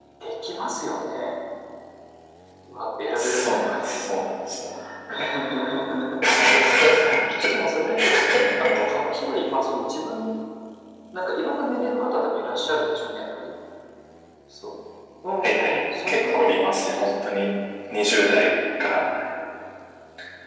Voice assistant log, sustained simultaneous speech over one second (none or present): present